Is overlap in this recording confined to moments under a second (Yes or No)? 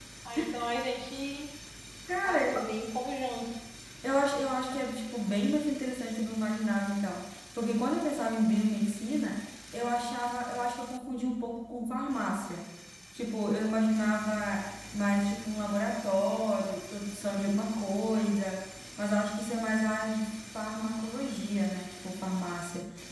Yes